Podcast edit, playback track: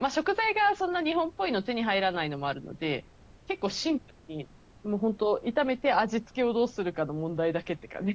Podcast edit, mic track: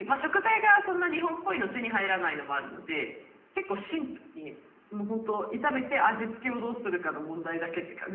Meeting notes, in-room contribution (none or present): none